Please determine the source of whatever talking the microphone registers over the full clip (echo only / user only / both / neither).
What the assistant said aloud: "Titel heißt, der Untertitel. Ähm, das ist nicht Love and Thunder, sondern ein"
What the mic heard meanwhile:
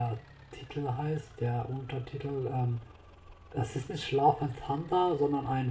echo only